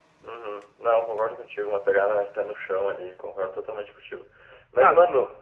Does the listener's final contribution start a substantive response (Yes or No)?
No